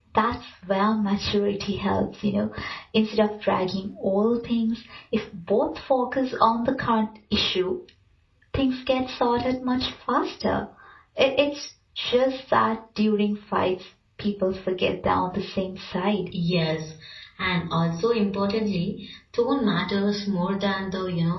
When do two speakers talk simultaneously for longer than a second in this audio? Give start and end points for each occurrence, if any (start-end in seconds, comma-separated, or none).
none